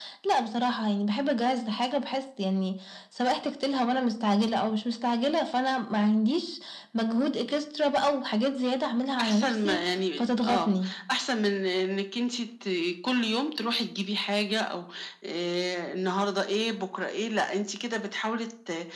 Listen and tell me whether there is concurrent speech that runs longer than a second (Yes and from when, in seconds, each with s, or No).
Yes, from 9.2 s